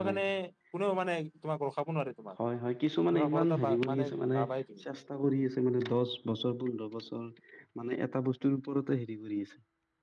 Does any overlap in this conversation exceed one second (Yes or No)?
Yes